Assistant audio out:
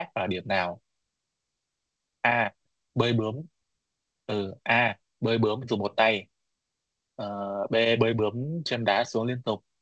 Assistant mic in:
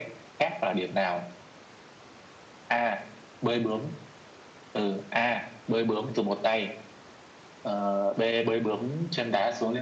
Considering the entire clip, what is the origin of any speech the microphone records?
echo only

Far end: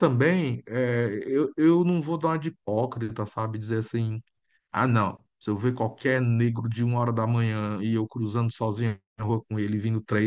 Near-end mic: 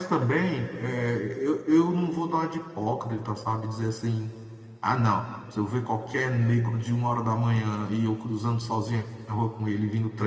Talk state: echo only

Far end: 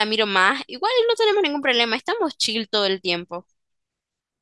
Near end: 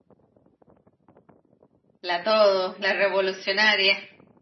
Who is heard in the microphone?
user only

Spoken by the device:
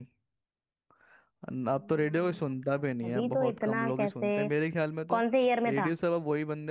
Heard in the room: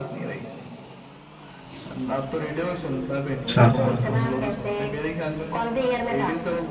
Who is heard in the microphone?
both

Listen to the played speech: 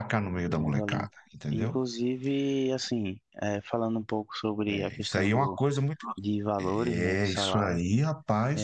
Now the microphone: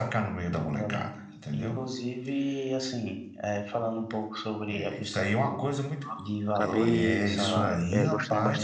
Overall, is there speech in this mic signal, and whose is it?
both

